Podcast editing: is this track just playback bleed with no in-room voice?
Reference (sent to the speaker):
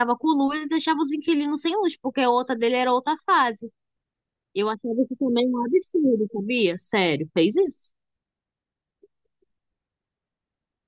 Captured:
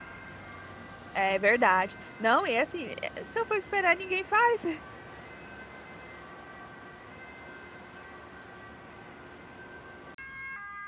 No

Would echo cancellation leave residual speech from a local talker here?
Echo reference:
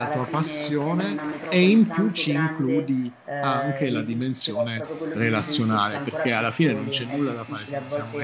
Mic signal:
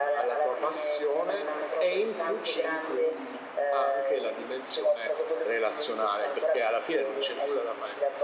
No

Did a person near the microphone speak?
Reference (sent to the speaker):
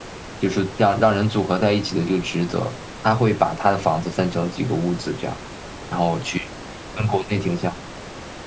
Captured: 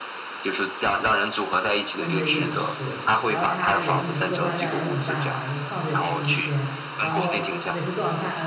Yes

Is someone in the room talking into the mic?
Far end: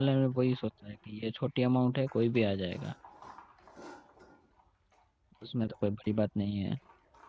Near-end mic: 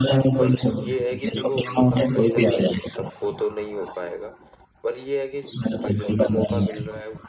Yes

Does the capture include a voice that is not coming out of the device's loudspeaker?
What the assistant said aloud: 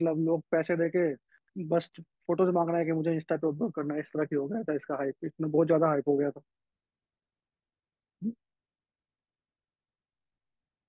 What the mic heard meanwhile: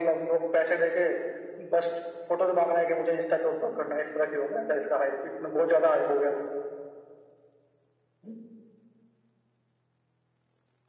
No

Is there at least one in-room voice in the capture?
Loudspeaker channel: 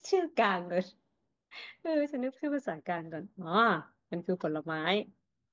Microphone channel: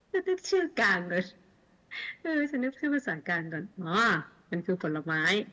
No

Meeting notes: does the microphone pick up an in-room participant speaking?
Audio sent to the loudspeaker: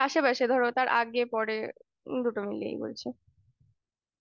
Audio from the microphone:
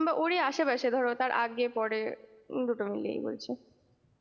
No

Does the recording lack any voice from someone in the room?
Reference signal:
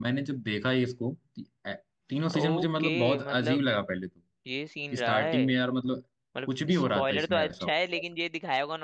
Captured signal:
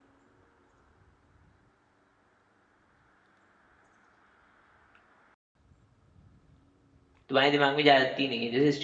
No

